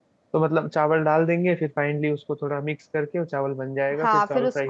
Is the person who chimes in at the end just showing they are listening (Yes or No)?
No